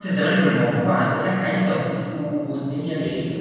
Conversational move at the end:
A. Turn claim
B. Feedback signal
A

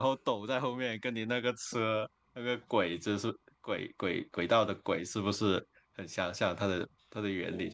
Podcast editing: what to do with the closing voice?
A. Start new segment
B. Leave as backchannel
A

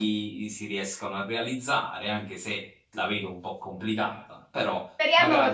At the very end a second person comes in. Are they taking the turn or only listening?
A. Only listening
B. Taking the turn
B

